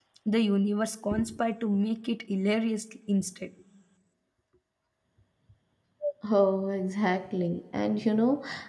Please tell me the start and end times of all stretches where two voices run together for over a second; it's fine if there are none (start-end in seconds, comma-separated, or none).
none